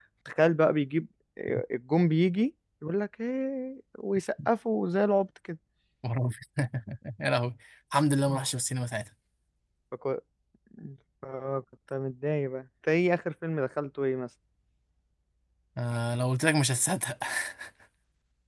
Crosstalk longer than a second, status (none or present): none